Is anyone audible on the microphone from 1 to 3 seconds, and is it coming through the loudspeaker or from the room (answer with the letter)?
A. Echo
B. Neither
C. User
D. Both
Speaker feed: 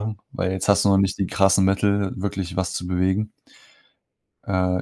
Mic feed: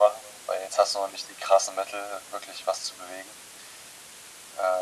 A